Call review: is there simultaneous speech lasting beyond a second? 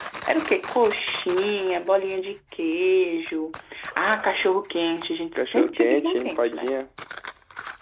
Yes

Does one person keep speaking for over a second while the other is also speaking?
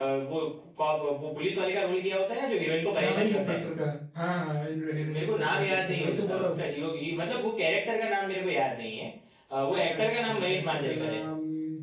Yes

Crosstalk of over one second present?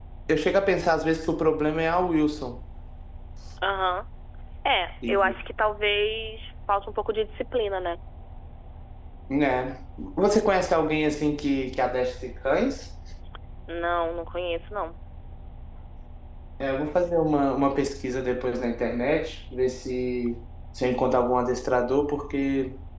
No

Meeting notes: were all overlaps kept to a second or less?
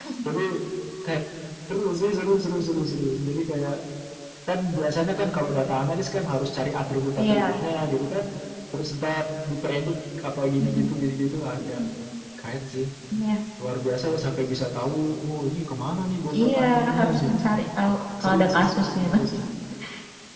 No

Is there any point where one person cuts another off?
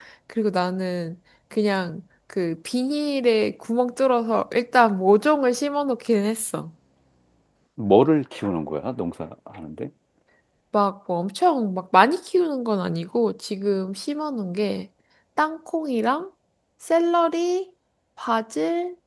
No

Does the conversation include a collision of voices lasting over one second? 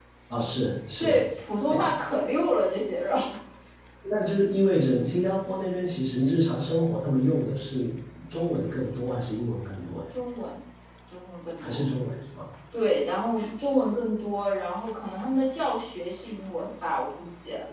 No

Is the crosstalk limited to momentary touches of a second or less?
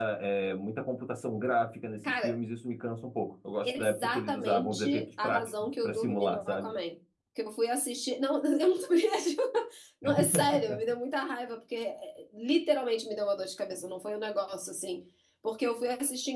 No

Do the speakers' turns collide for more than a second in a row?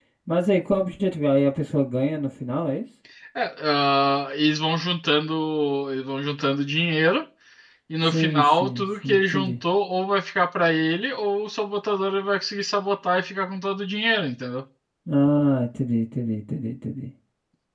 Yes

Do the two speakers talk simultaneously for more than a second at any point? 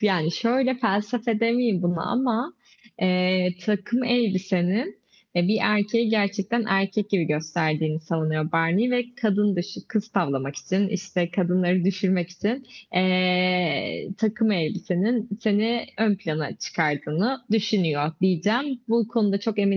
No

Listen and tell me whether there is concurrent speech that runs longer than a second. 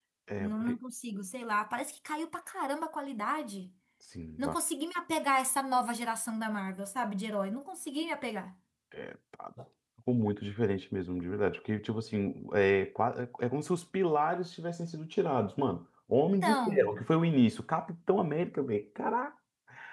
No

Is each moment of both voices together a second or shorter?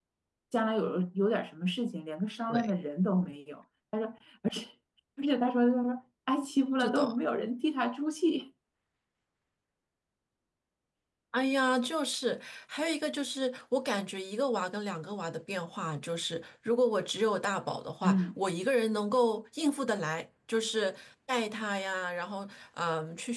Yes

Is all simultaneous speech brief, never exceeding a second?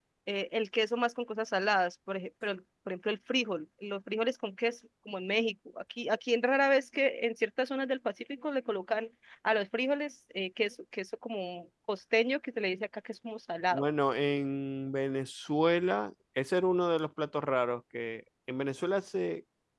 Yes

